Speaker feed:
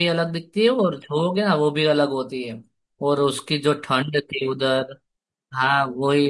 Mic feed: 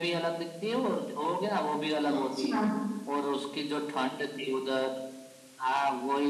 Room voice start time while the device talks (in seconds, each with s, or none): 2.1 s